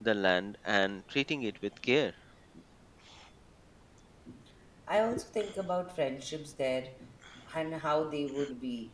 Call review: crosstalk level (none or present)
none